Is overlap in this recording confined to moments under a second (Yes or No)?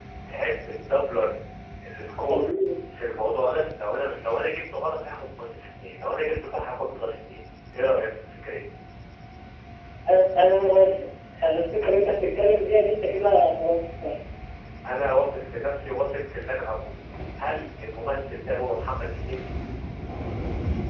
Yes